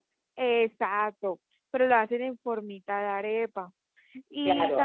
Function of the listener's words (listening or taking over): taking over